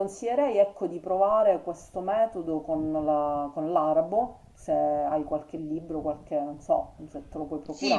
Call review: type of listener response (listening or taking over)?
taking over